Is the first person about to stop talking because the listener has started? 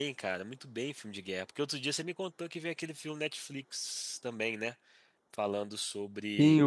Yes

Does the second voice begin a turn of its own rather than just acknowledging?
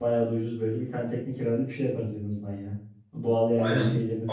Yes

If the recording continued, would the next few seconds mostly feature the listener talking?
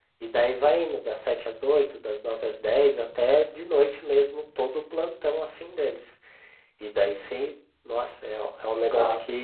No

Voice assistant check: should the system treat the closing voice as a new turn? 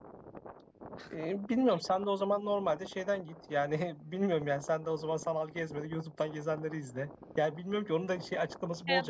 Yes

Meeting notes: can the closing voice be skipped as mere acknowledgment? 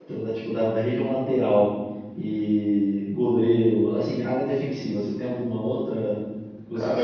No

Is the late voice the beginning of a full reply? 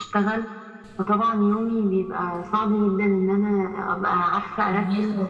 No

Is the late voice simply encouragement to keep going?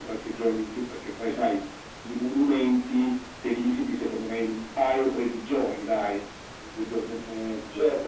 No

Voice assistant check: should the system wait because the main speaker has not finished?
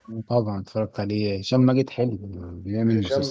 No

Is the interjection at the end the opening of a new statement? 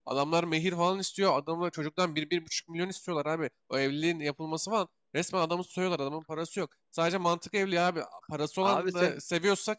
No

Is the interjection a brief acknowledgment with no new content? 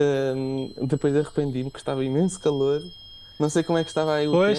No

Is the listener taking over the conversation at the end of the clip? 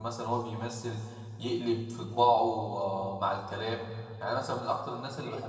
No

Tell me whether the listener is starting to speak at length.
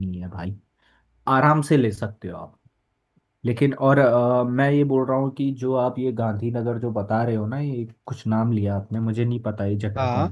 No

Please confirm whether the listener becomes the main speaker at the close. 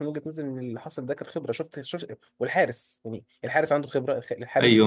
Yes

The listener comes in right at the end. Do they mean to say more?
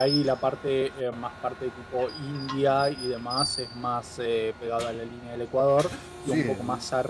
No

